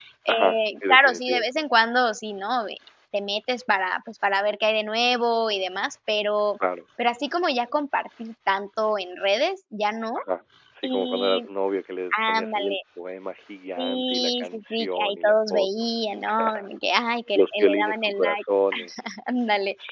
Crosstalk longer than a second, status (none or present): present